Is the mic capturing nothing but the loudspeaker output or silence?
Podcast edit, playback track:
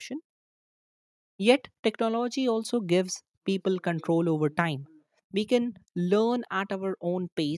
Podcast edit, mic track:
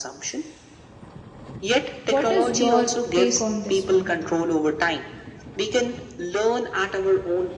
No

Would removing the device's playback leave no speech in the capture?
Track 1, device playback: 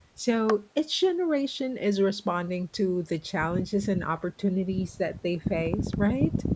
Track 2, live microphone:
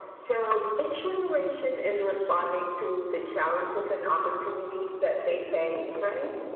Yes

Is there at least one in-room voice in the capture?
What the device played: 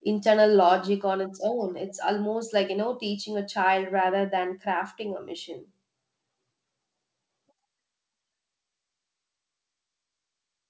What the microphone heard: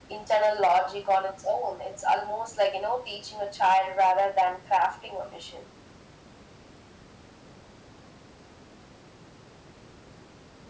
No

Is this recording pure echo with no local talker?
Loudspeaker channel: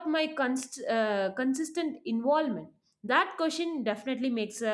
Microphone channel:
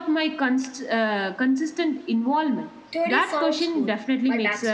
No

